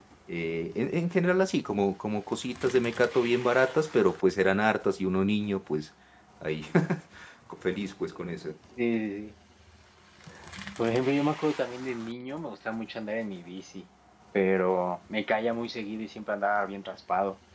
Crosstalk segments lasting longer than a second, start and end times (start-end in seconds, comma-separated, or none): none